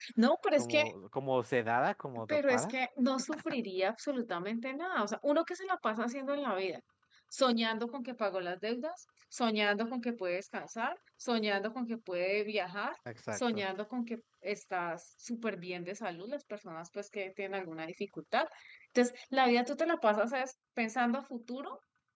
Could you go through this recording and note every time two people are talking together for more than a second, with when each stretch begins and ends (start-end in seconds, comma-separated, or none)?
none